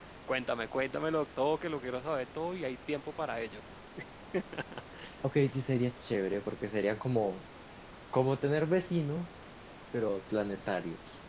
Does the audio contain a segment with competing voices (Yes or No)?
No